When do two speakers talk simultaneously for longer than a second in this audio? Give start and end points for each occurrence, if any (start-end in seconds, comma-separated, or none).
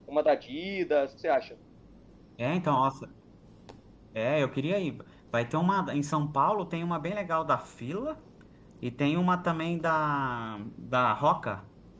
none